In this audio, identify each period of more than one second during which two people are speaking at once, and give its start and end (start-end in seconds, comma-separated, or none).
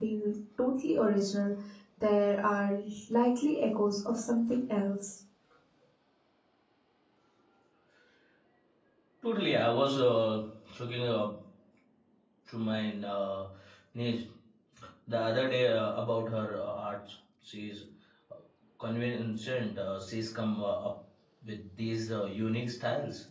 none